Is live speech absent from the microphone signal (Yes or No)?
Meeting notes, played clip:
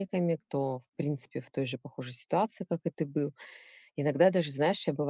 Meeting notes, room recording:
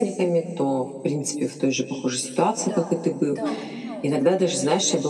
No